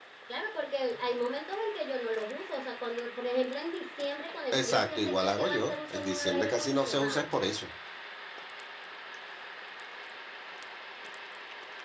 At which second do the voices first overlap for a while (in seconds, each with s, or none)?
4.5 s